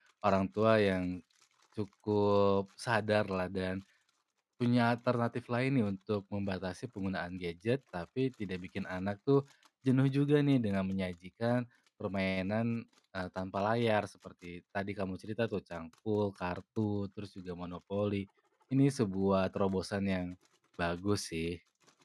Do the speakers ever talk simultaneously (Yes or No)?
No